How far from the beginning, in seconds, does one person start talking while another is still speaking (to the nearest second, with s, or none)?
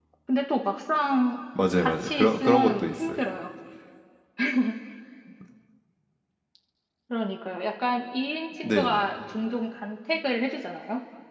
2 s